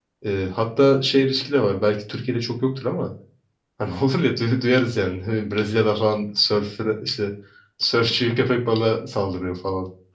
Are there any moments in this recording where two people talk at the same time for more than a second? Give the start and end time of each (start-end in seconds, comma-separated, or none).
none